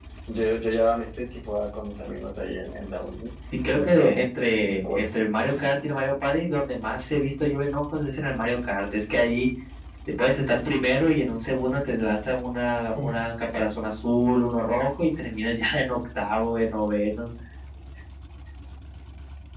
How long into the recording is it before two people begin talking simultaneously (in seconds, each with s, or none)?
3.5 s